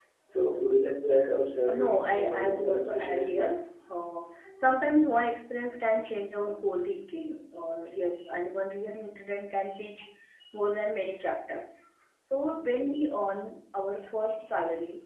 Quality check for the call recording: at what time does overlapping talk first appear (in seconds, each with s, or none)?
1.7 s